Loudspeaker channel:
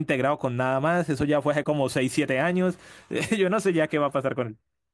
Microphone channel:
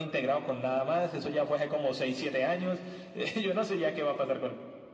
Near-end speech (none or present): none